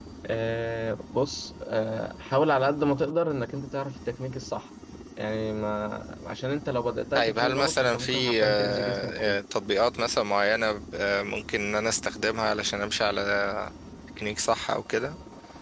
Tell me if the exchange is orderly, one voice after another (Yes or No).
No